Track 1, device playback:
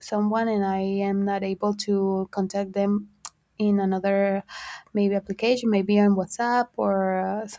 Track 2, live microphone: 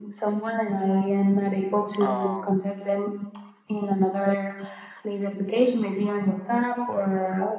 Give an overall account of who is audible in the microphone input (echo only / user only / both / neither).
both